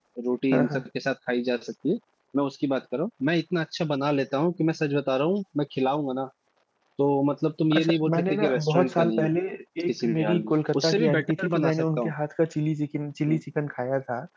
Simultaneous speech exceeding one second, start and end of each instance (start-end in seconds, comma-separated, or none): 7.8-9.3, 9.9-12.1